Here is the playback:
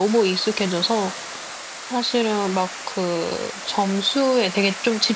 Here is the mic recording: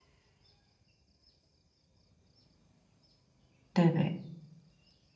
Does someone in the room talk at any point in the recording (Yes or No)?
Yes